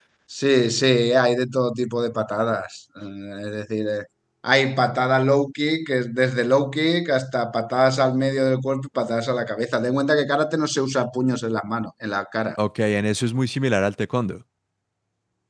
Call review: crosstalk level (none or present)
none